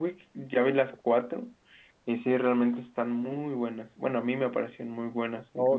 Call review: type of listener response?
taking over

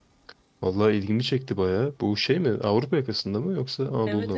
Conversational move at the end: taking over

